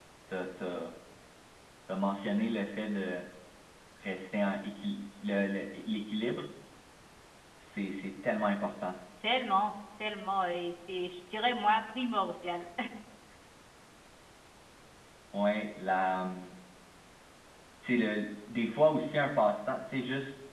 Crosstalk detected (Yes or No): No